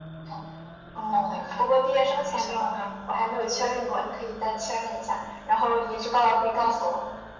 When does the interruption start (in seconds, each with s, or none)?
1.1 s